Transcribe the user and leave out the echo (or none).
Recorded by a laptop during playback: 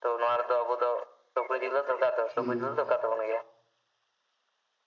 ᱦᱩᱸ